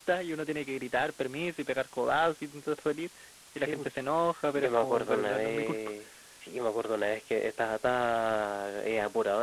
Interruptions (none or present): present